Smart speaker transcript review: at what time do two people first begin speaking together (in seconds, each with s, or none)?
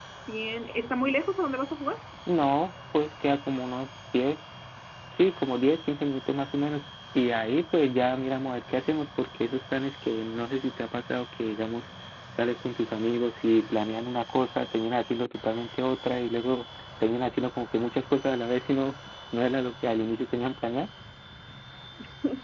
none